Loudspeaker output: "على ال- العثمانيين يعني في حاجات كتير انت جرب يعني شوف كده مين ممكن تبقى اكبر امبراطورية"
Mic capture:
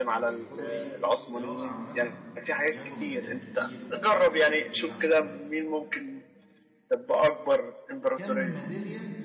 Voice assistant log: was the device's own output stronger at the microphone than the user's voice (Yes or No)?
Yes